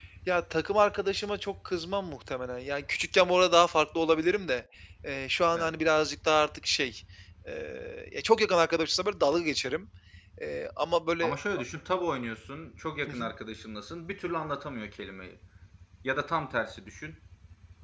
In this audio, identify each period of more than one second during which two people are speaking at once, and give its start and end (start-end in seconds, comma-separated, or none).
none